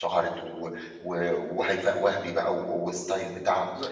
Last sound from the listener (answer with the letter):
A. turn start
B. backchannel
A